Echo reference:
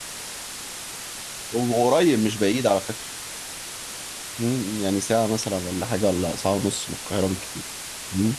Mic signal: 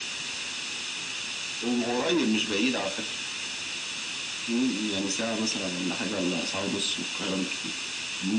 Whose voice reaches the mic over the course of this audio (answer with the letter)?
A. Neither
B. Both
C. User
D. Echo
D